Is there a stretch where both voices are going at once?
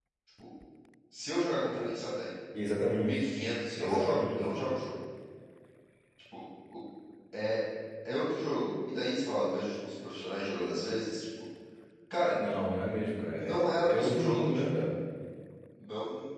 Yes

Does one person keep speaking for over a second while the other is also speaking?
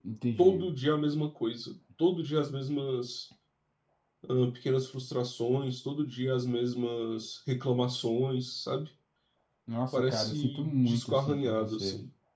Yes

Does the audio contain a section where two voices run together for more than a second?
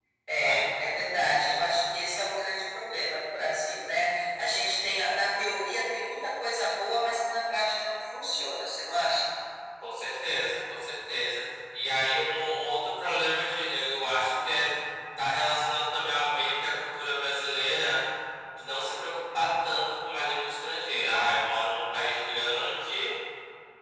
No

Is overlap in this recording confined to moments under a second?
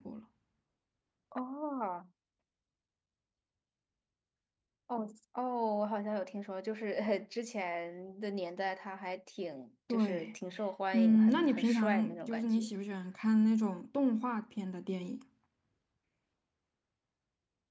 No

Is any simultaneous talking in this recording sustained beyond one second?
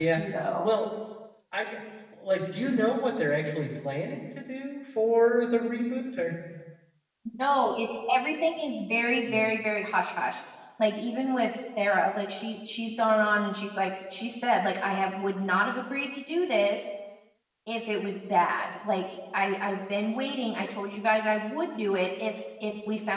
No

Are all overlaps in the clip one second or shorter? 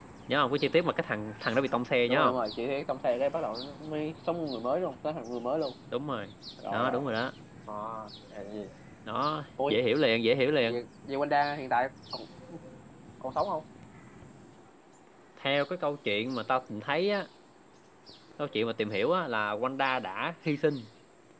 Yes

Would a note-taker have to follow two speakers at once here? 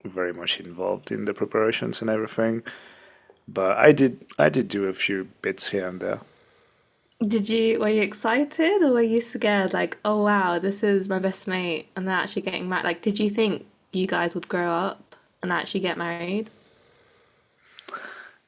No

